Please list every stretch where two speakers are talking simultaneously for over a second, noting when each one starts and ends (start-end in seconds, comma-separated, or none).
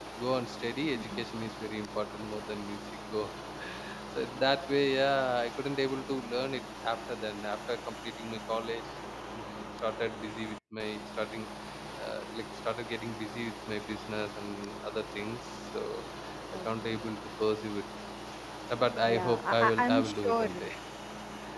19.1-20.7